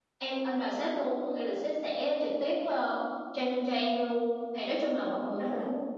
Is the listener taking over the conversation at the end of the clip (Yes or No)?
No